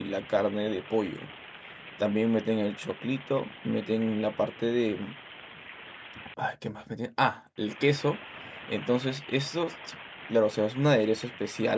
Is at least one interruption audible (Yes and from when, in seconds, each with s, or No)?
No